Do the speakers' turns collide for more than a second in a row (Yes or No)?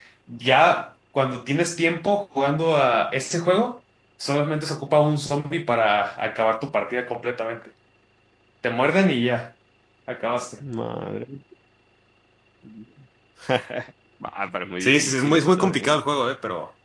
Yes